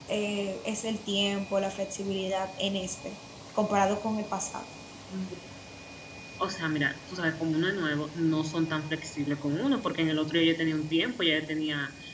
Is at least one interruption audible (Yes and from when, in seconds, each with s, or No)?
No